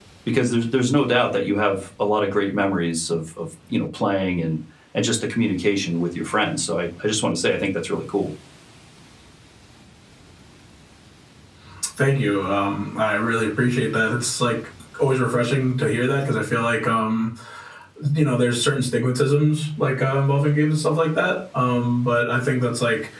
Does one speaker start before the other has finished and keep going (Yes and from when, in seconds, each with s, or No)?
No